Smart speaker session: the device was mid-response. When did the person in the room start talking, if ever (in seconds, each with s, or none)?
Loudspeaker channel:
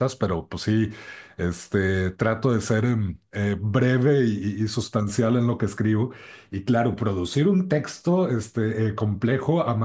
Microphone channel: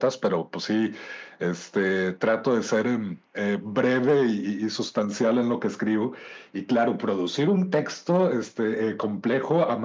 none